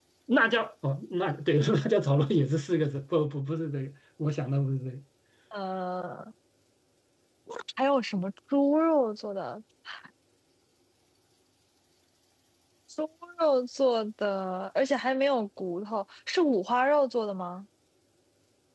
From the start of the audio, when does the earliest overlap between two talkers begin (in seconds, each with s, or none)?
none